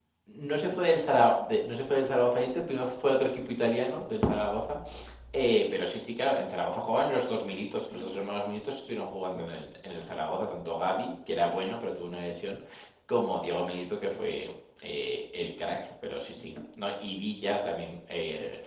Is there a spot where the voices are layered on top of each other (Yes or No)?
No